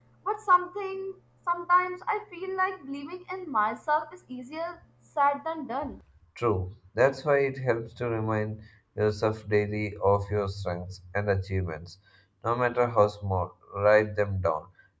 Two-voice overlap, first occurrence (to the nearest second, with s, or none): none